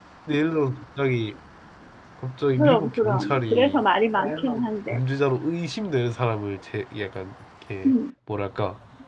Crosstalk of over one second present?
Yes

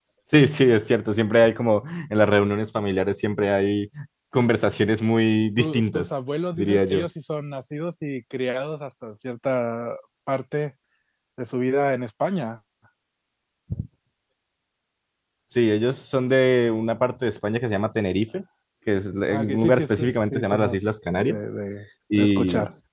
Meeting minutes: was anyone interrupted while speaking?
Yes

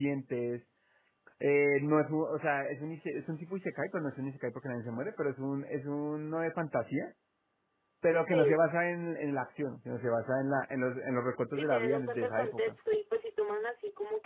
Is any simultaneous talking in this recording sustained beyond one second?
Yes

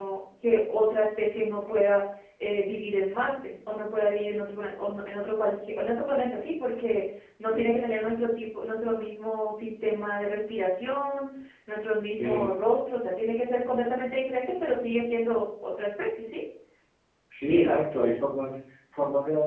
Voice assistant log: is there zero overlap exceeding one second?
Yes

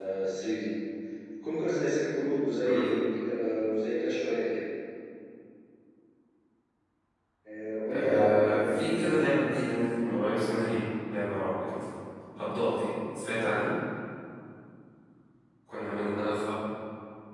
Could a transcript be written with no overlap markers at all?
No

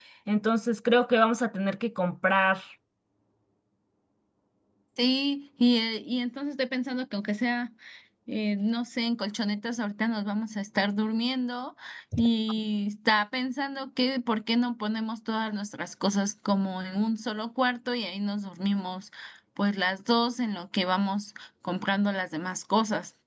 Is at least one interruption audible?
No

